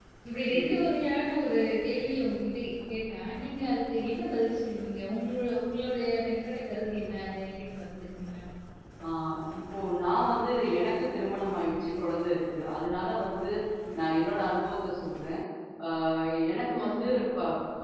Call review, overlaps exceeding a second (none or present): none